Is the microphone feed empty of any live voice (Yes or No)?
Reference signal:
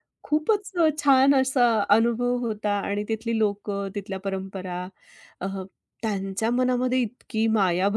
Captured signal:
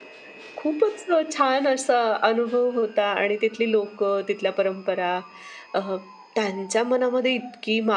Yes